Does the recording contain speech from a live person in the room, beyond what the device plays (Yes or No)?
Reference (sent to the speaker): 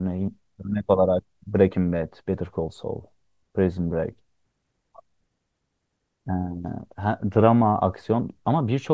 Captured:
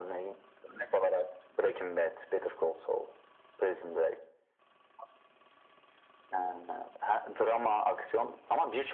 No